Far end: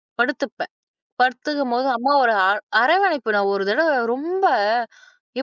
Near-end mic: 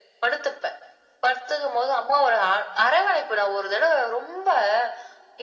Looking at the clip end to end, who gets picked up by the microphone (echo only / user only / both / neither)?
echo only